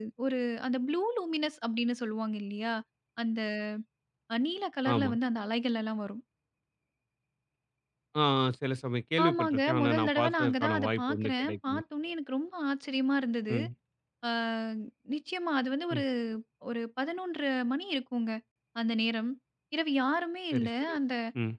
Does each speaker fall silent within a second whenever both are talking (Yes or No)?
No